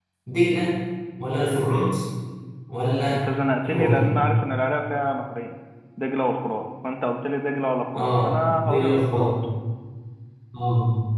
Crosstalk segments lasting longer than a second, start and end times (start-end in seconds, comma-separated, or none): 7.9-9.2